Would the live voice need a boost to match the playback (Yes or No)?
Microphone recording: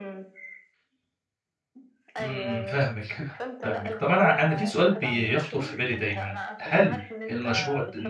No